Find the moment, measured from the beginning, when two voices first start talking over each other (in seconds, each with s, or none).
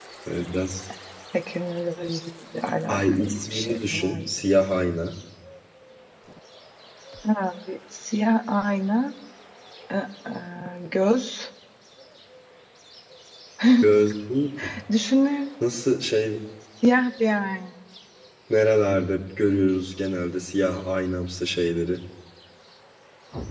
2.9 s